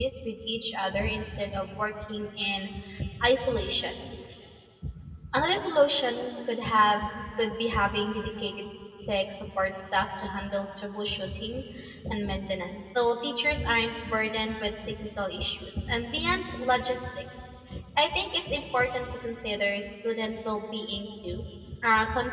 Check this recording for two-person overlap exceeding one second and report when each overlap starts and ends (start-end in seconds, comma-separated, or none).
none